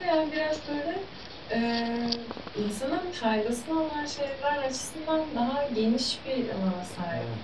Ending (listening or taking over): taking over